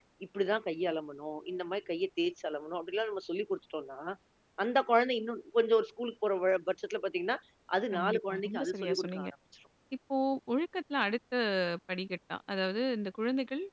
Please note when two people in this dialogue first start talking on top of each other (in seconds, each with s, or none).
7.9 s